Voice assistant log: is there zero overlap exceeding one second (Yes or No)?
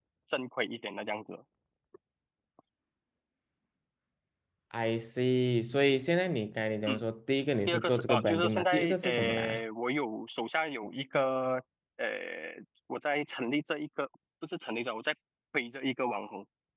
No